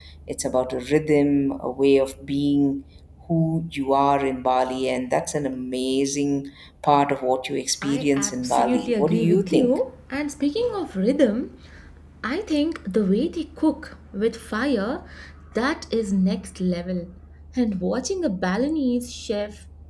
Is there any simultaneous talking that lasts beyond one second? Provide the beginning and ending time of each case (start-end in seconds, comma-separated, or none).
7.9-9.7